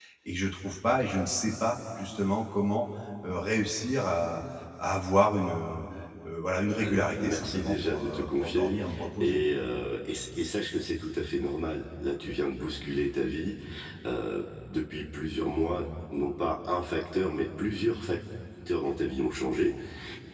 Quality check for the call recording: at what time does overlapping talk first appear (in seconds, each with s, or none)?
6.8 s